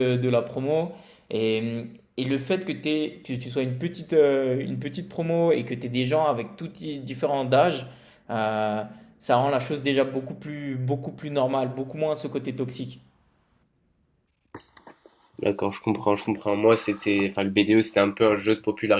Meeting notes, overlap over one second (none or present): none